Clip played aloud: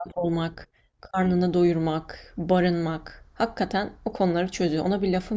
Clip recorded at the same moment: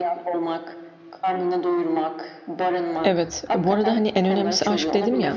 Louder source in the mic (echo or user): user